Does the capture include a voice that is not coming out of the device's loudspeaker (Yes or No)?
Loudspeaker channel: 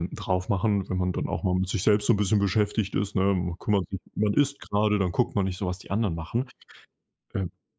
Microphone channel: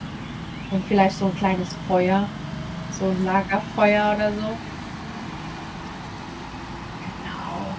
Yes